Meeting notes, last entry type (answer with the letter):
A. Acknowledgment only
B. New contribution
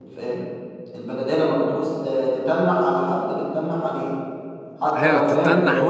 B